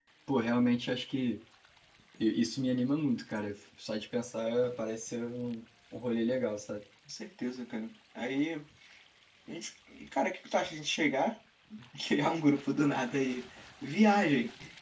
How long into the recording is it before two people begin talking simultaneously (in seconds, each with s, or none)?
none